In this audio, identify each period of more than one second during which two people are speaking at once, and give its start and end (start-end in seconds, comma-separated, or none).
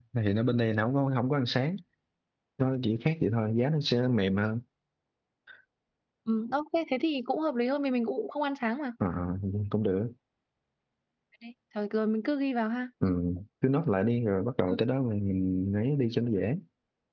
none